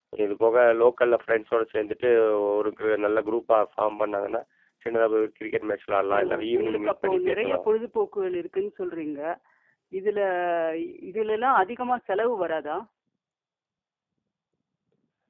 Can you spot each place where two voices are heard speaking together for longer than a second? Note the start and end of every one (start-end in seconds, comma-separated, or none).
6.2-7.6